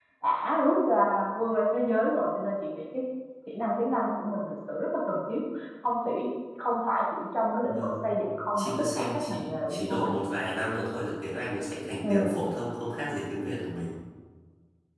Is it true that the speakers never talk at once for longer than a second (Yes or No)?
No